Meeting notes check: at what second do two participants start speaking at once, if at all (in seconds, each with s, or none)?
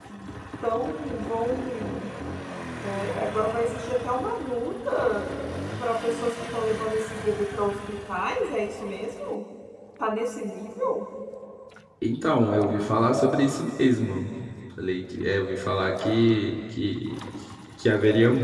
none